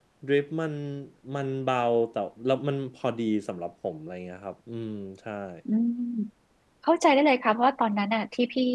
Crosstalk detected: No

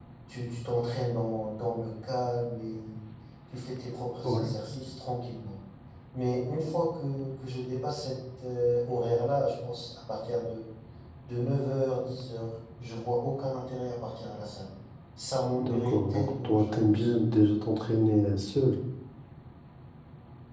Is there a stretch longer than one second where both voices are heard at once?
Yes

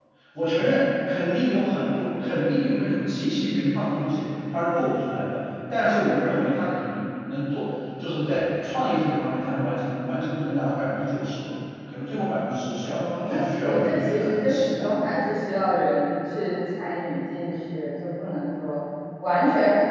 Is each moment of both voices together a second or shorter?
No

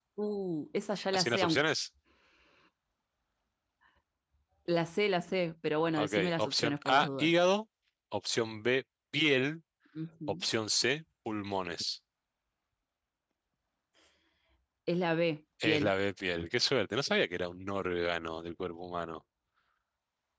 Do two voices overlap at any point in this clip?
Yes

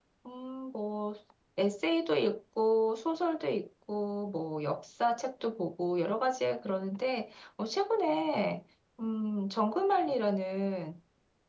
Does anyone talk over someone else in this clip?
No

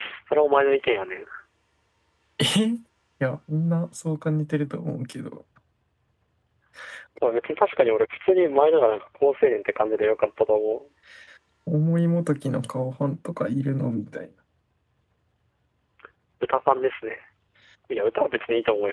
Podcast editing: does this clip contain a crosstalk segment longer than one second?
No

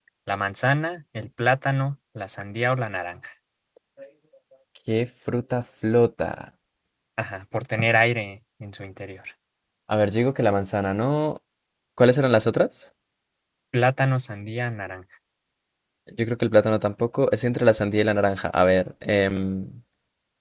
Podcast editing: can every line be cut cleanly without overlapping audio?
Yes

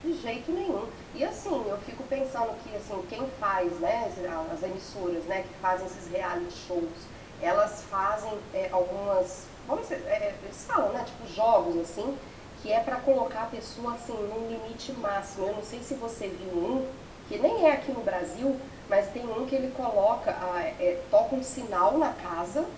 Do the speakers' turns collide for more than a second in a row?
No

